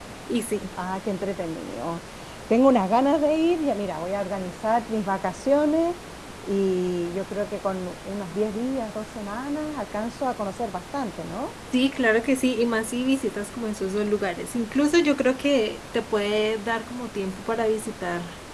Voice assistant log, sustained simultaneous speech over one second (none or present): none